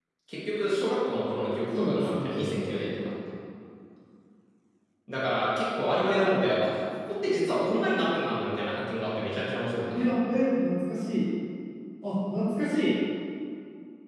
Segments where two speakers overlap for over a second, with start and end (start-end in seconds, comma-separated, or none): 1.7-3.0